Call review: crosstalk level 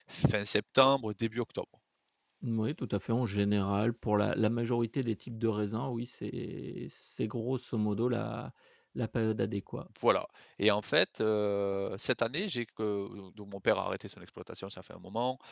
none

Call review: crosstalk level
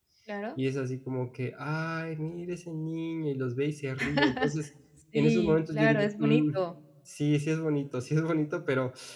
present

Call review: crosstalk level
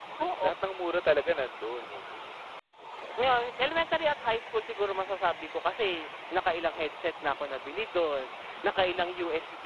none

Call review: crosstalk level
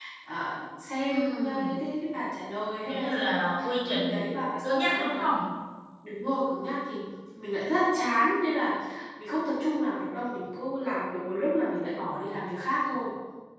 present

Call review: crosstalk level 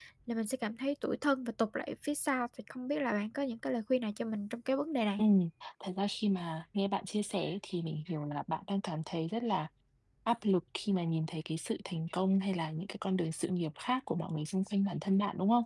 none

